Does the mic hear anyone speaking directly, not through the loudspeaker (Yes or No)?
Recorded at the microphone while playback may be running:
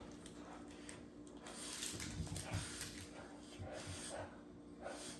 No